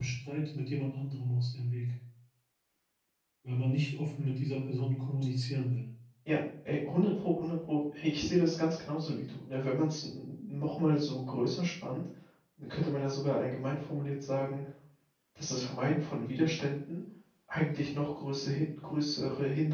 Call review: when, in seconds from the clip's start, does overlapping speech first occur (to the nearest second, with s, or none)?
none